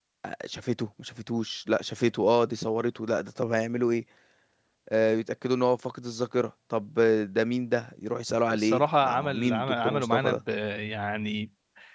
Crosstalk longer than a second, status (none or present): present